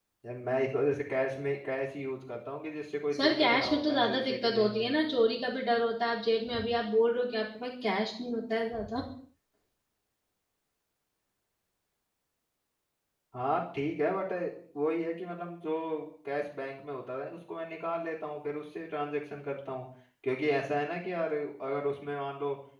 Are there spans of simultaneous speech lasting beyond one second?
Yes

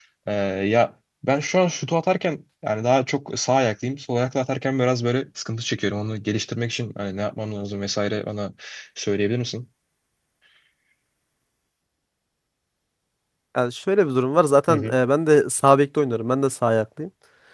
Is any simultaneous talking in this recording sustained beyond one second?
No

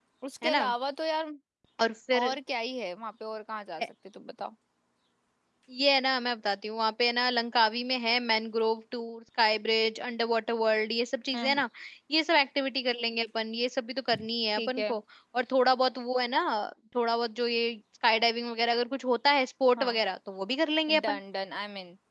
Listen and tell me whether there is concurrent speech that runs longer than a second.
No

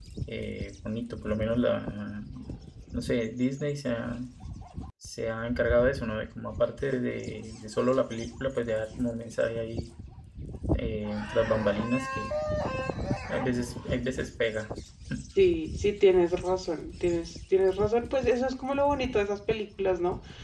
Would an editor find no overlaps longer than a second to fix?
Yes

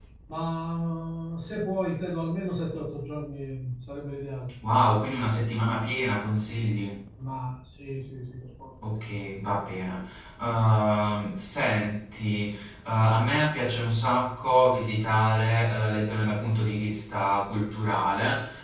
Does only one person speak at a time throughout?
Yes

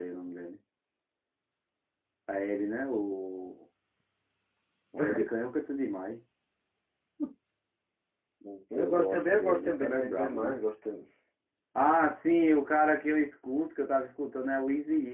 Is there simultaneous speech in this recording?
Yes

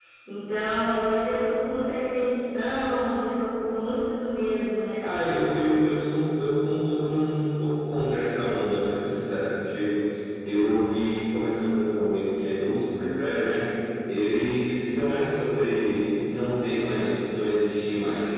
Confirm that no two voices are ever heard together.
Yes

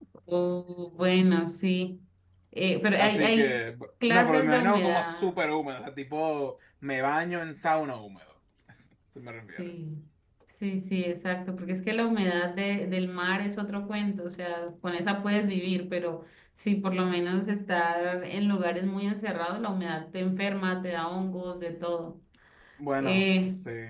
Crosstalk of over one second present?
Yes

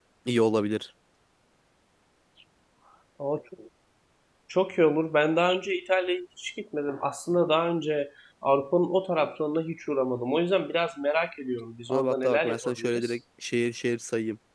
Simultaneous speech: Yes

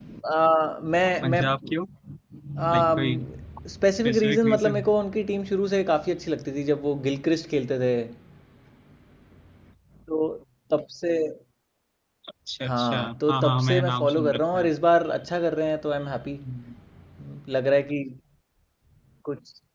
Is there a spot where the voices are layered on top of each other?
Yes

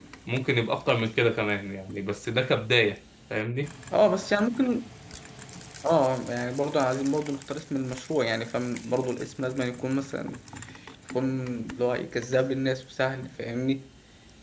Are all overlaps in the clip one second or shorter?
Yes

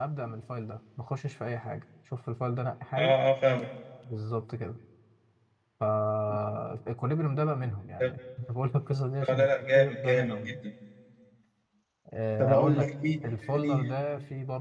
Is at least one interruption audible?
Yes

